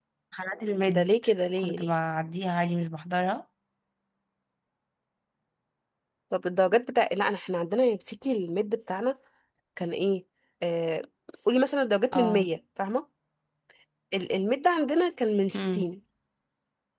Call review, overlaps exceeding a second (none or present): none